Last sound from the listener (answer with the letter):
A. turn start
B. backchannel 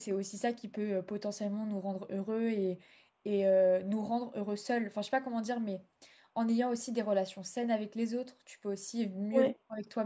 B